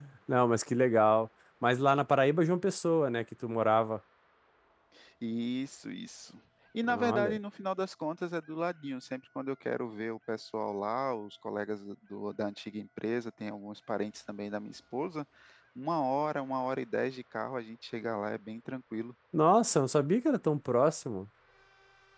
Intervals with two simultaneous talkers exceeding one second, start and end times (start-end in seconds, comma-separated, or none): none